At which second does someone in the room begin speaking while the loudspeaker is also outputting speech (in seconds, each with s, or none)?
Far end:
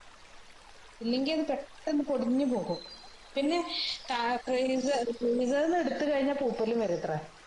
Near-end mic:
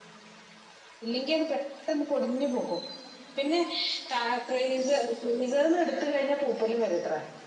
none